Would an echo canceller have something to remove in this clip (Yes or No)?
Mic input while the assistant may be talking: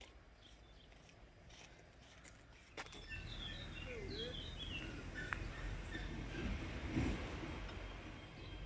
No